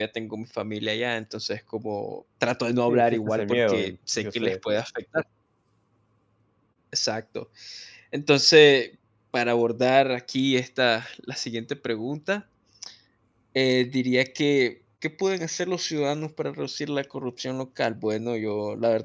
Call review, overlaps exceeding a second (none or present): present